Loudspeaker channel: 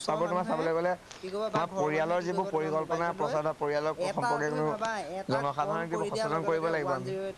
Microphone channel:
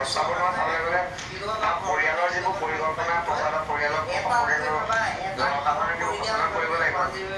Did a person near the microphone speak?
No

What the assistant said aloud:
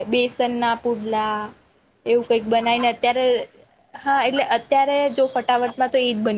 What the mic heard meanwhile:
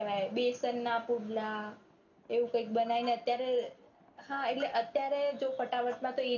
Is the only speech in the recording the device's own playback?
Yes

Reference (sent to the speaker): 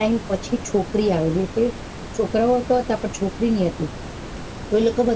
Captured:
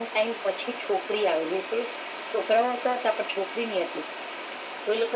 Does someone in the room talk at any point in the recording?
No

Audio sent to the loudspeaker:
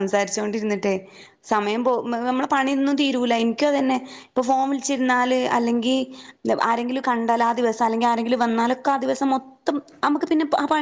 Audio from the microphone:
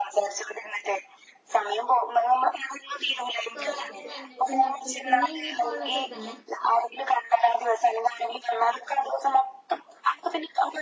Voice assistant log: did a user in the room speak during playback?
Yes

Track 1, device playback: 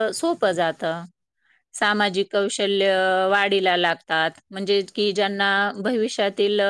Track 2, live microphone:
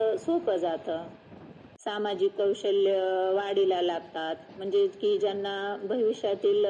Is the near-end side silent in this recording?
Yes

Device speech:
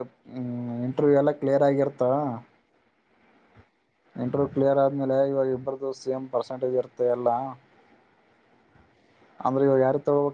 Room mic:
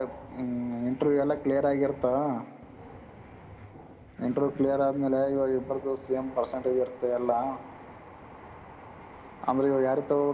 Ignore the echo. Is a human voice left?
No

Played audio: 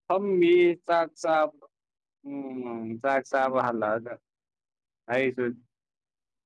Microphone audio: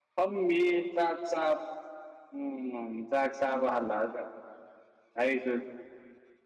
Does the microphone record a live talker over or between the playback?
No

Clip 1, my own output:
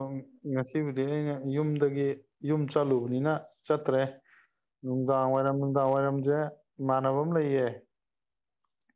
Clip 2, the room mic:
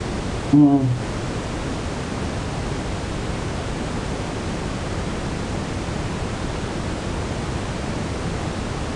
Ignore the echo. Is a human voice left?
Yes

